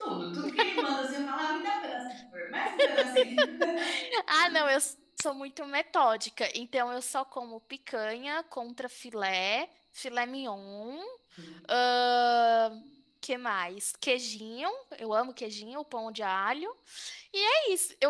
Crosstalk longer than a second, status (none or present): none